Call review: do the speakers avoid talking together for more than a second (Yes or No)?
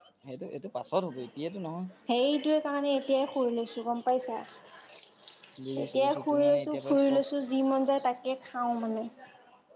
No